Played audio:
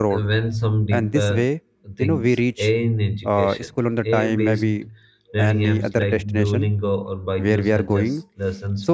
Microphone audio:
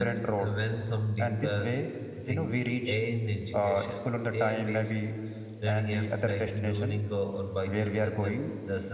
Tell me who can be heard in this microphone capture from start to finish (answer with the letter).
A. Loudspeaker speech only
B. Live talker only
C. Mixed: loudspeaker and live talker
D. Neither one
A